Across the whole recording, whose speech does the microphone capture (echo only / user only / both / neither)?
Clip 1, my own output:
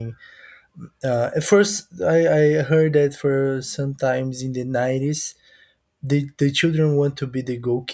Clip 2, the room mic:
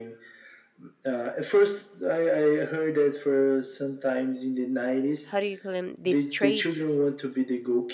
both